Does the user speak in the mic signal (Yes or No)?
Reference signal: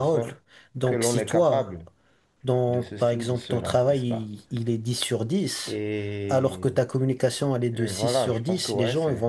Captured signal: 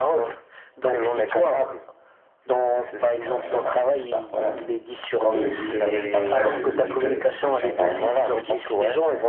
Yes